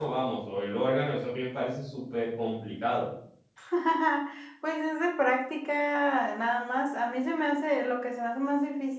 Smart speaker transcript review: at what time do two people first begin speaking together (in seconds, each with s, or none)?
none